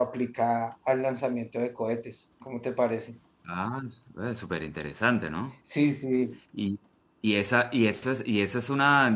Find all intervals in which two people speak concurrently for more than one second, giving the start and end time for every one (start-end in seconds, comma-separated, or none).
none